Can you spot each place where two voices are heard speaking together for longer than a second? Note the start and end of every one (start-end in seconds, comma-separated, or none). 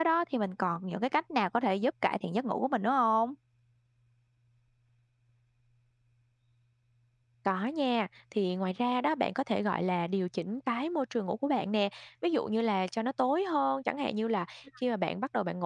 none